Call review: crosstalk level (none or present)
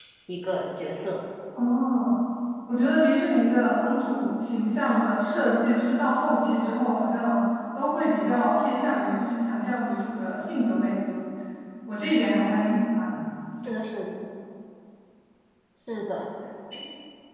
none